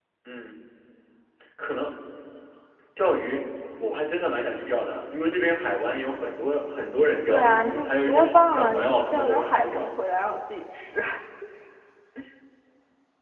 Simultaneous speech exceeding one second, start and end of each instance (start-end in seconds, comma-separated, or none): 7.3-9.9